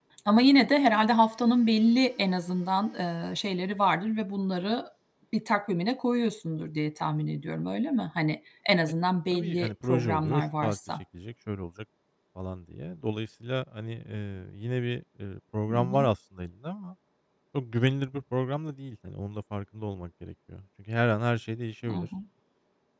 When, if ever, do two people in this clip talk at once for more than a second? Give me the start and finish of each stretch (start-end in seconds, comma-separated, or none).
9.3-10.8